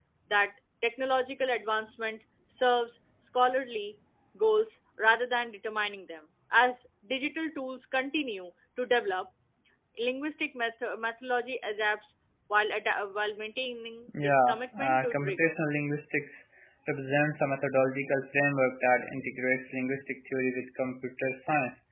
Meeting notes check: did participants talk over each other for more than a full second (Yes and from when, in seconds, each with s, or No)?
Yes, from 14.1 s